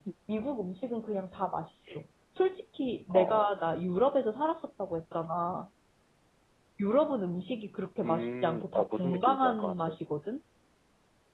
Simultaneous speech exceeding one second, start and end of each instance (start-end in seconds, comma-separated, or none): 8.0-10.0